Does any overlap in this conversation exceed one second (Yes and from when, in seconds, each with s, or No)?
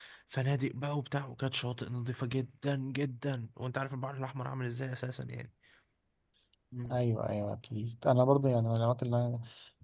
No